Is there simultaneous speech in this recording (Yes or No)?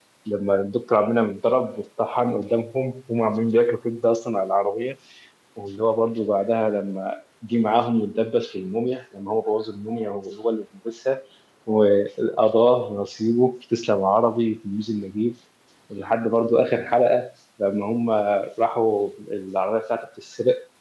No